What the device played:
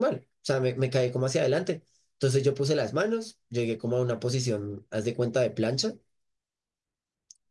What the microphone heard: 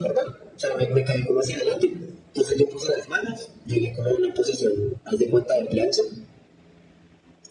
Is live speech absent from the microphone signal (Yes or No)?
Yes